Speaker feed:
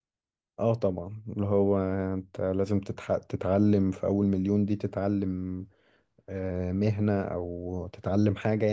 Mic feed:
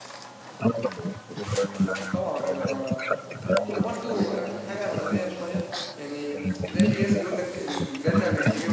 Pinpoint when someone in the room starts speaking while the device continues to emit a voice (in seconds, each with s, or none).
2.1 s